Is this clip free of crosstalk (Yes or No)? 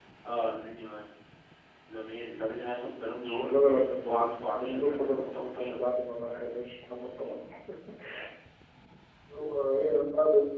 No